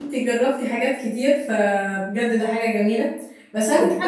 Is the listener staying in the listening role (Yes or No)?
Yes